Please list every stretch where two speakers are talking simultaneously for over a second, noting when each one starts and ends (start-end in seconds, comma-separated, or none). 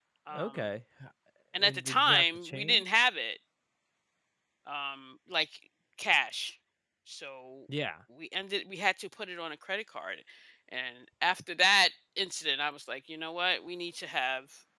1.6-2.8